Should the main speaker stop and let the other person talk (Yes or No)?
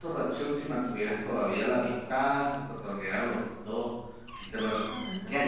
Yes